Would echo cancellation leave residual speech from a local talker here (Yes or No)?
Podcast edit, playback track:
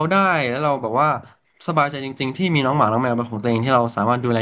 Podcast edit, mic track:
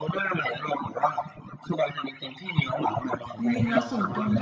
Yes